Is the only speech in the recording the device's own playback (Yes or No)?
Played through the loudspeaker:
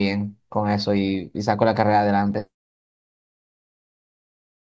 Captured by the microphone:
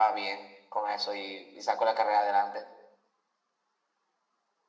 Yes